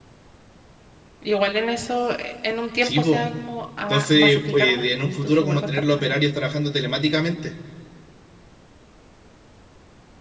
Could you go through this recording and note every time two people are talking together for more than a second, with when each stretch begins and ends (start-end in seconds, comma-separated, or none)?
3.9-6.2